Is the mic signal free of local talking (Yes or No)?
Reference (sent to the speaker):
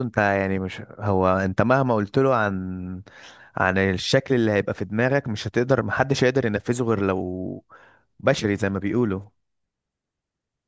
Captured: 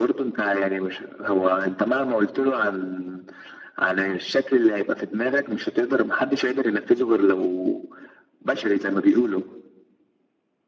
Yes